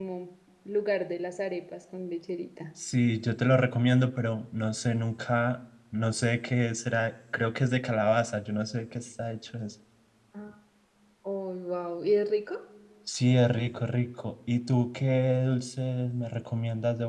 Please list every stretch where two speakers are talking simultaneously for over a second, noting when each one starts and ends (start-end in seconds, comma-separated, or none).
none